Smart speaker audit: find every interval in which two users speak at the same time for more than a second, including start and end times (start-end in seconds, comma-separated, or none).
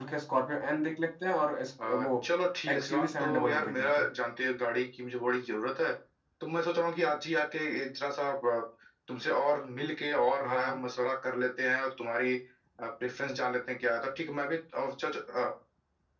2.7-4.1